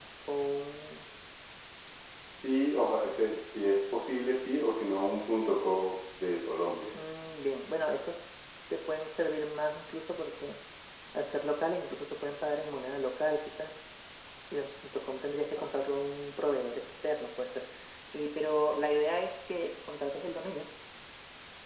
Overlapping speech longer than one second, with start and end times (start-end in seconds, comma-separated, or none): none